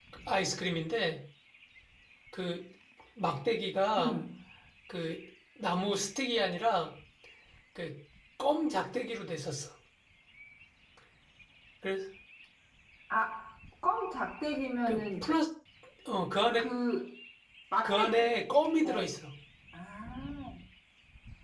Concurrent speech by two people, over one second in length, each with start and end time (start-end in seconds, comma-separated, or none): none